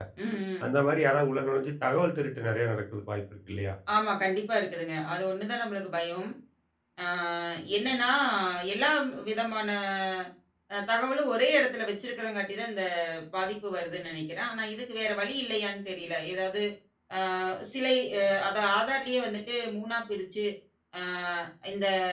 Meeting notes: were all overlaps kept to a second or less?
Yes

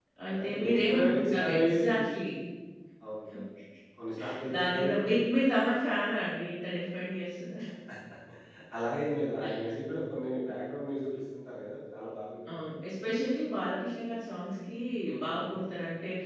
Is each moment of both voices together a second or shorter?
No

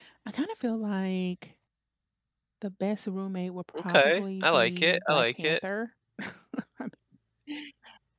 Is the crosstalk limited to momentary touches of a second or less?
No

